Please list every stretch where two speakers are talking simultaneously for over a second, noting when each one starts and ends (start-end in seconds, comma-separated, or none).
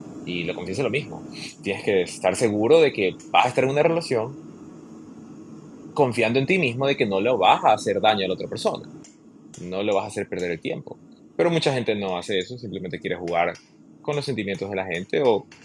none